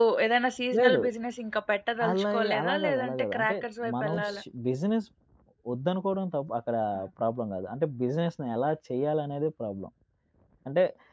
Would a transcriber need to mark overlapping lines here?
Yes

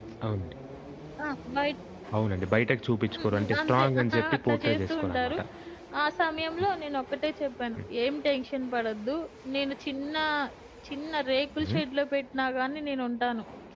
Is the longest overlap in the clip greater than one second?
Yes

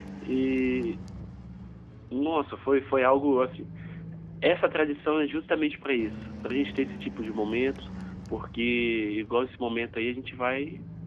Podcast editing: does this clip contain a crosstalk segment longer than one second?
No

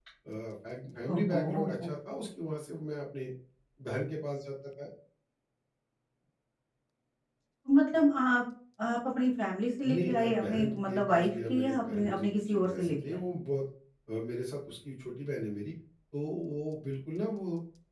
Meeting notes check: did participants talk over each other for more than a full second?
Yes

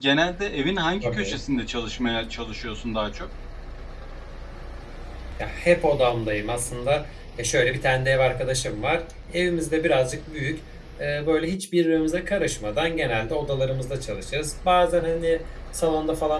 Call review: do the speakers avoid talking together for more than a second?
Yes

